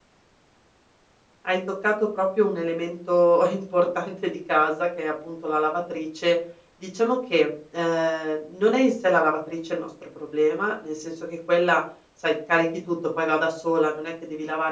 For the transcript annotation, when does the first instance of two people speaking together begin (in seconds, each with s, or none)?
none